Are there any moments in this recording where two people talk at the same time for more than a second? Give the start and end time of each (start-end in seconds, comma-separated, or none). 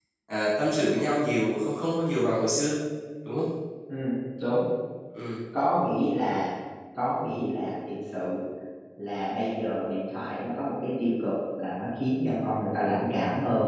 none